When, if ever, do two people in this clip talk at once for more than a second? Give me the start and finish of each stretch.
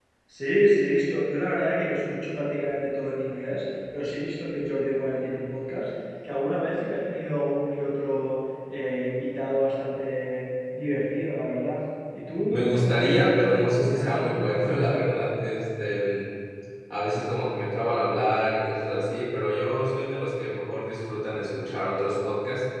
12.5-14.5

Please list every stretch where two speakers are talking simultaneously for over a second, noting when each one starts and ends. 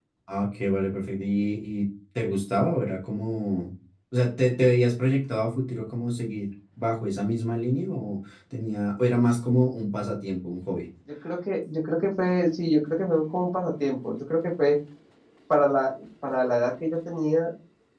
none

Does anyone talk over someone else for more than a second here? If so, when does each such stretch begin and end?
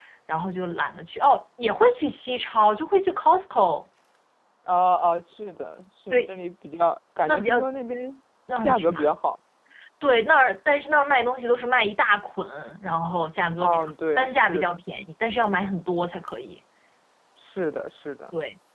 13.6-14.8

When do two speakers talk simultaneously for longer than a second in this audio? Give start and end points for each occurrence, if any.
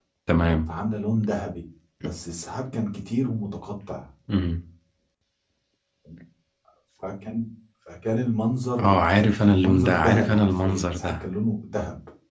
8.8-11.2

